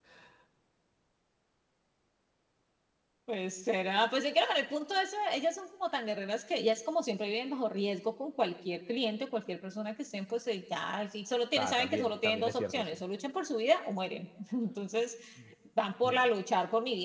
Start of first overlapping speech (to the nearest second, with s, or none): 12 s